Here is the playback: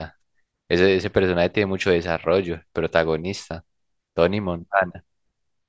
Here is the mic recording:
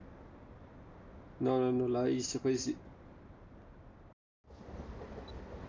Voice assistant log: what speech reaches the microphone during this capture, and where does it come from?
user only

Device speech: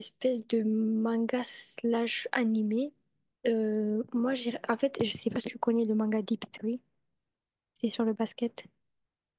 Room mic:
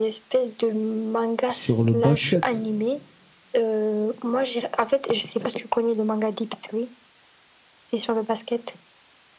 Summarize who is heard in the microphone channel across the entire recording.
both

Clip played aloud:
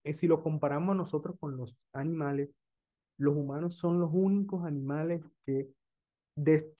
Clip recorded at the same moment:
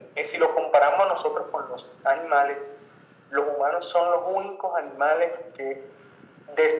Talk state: echo only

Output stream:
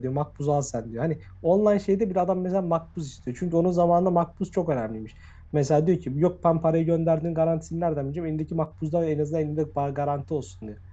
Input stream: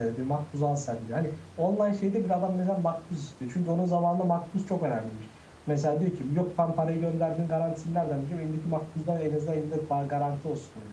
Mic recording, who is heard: echo only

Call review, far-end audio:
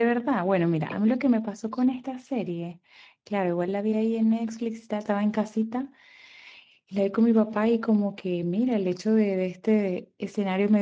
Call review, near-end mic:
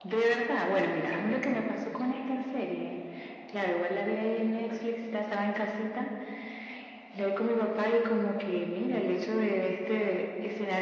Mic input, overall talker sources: echo only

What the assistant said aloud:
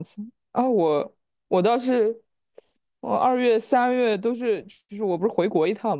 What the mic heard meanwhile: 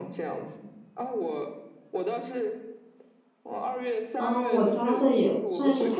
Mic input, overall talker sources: both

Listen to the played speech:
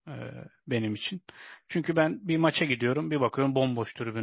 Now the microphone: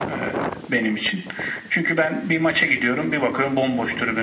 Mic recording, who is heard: echo only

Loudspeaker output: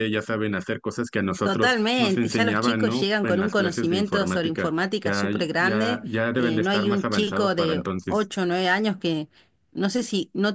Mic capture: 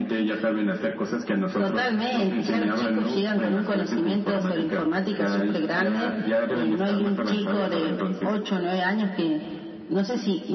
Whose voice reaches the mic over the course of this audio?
echo only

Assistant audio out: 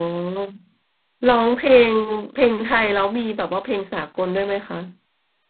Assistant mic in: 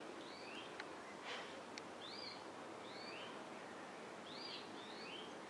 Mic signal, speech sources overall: neither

